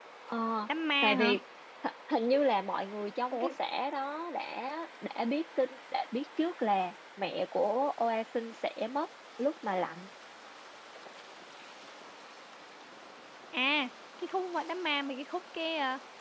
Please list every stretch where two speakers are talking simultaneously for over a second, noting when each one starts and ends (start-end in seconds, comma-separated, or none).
none